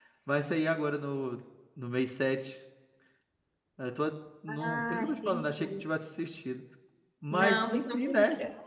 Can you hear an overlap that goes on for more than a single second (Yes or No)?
Yes